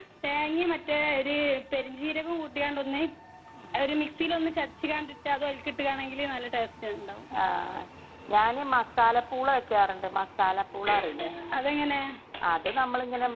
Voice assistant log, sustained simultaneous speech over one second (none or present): none